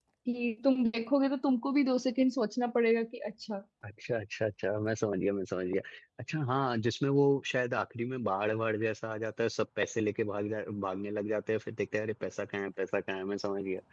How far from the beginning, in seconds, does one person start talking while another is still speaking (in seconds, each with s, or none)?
none